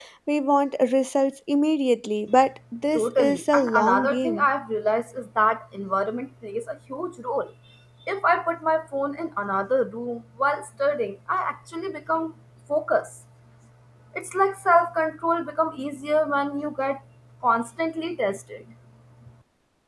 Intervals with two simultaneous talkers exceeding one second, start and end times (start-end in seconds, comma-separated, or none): 2.9-4.5